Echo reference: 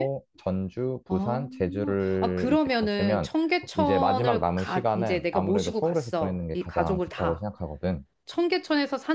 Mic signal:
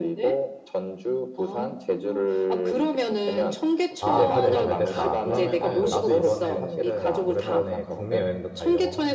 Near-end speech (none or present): present